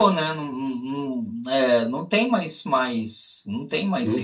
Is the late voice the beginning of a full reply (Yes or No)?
Yes